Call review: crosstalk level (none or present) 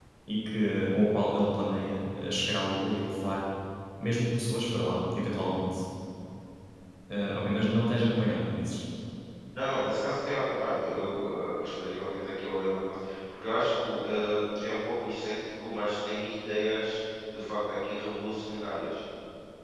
none